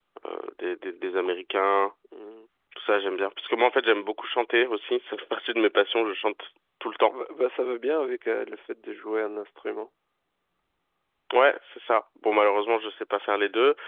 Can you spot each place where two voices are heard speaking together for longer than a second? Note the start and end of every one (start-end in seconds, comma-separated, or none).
none